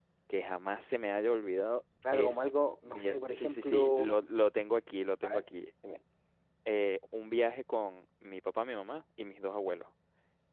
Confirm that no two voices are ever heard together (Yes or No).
No